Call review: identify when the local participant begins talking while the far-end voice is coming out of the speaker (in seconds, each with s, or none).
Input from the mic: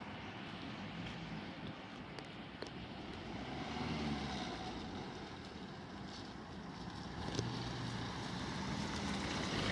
none